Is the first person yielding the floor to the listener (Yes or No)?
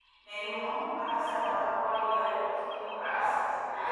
Yes